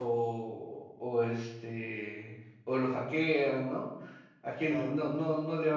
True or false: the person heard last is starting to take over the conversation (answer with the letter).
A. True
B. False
B